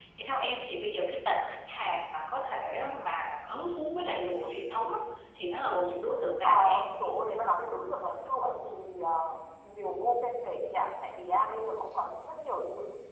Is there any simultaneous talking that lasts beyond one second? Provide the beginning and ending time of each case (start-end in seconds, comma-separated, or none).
none